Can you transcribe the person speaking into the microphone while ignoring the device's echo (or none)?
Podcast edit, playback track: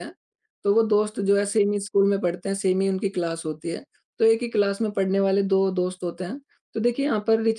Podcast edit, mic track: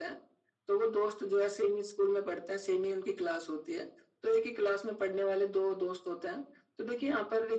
none